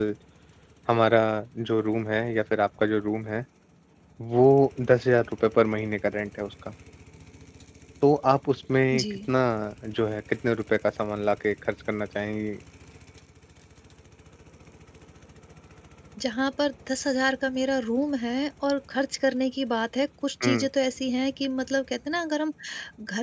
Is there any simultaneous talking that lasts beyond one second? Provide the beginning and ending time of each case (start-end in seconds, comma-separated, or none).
none